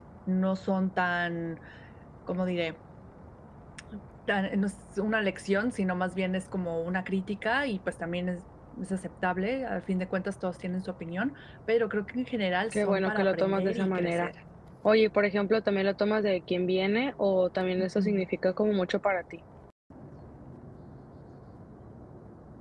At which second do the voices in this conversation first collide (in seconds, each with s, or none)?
12.7 s